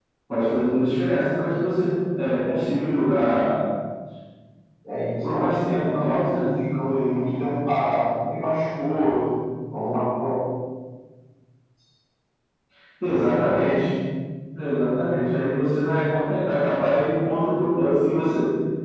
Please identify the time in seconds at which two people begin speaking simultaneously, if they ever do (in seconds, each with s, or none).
5.2 s